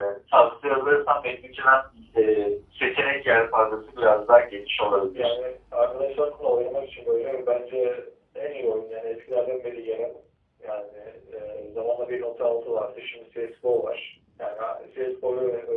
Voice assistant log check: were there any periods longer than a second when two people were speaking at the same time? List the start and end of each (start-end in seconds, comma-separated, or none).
none